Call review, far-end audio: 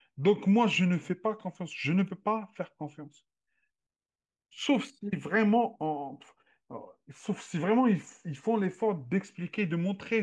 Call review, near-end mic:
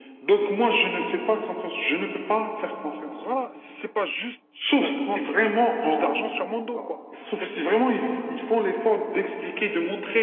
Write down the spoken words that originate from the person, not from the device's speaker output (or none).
donc voilà, si c'est pas juste pour prendre plus d'argent sur mon dos, quoi. C'est tout.